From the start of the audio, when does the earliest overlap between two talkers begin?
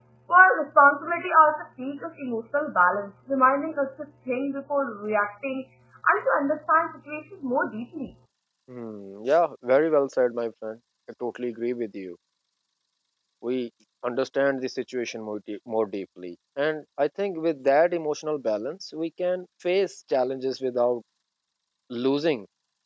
none

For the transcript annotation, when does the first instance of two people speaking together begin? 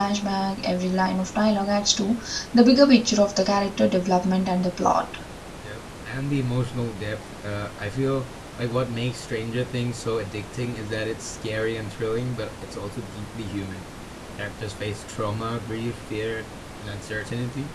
none

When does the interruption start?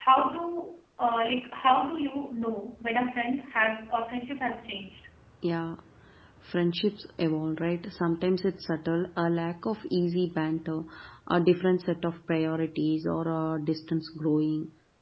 none

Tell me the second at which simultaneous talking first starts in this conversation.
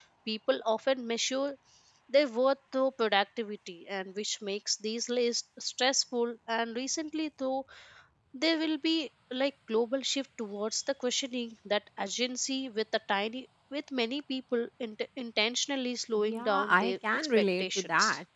16 s

